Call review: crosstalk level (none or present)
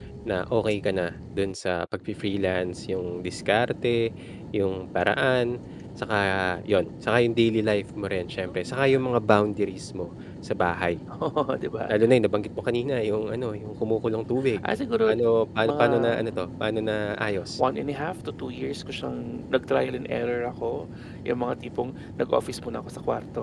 present